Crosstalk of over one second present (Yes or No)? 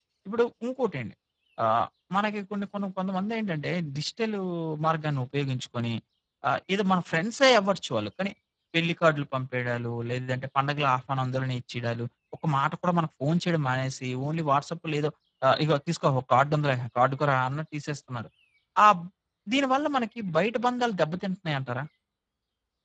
No